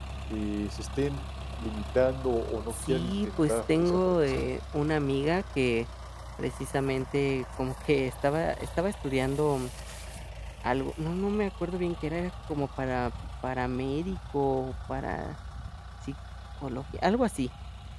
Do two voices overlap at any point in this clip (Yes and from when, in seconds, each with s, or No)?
Yes, from 2.7 s